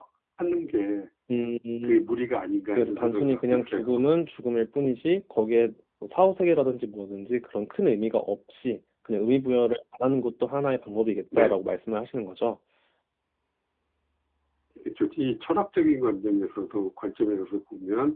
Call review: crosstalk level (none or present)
present